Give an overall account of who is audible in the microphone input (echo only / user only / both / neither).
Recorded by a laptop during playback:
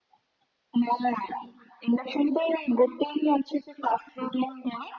echo only